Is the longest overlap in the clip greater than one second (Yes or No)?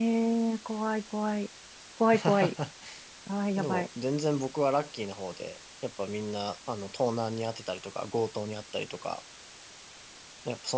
No